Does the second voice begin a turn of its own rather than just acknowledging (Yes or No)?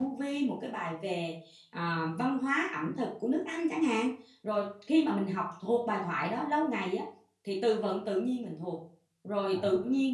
No